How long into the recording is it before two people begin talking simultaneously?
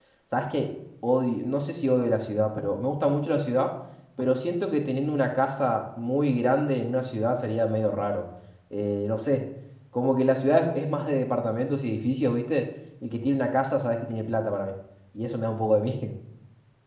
none

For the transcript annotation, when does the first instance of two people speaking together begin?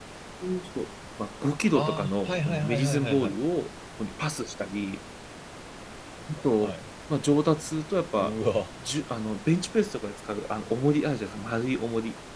1.8 s

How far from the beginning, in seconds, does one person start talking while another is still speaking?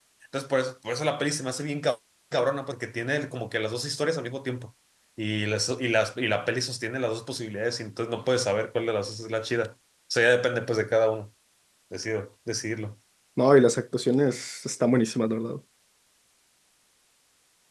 none

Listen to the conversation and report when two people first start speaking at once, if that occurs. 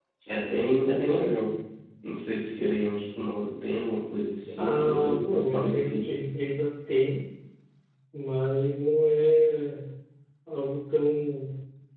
4.5 s

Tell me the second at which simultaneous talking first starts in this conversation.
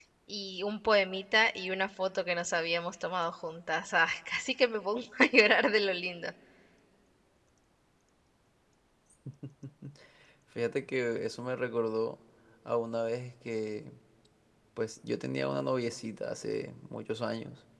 none

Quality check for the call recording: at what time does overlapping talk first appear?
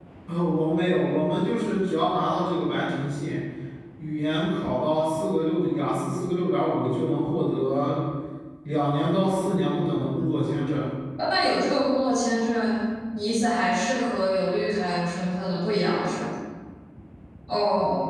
none

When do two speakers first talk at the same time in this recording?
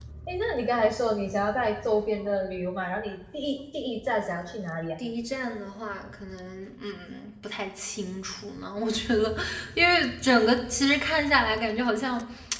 none

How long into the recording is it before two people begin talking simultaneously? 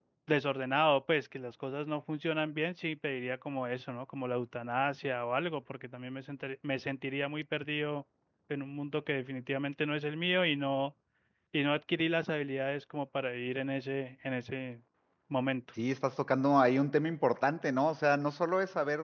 none

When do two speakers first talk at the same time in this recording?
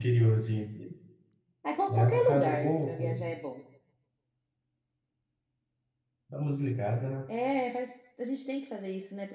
1.9 s

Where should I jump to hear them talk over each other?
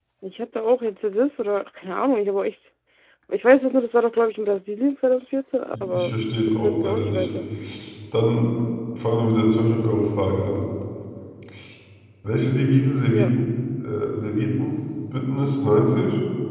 5.7 s

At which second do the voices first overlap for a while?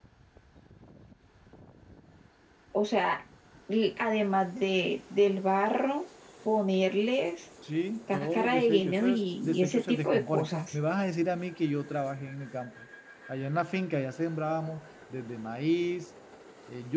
8.1 s

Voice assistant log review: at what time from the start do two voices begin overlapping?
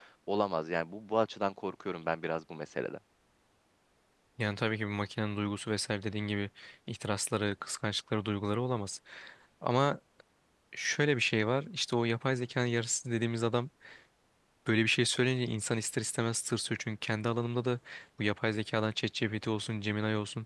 none

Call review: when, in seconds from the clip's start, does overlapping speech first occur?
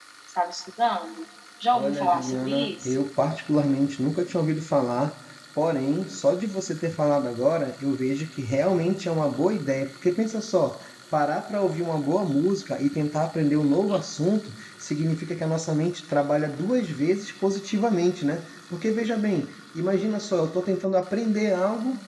1.7 s

